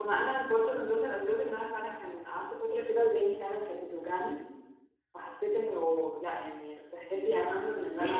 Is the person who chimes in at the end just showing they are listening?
No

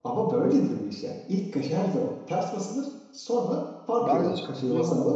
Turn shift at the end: Yes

